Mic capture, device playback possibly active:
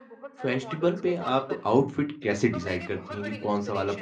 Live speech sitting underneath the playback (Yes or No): No